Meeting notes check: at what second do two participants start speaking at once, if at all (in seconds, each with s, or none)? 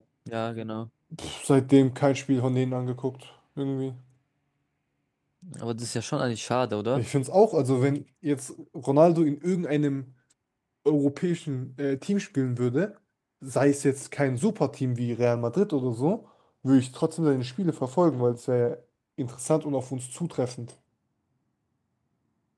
none